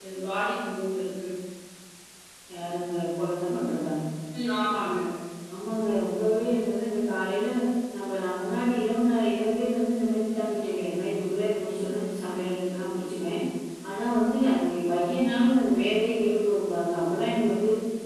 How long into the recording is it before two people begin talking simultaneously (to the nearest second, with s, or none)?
none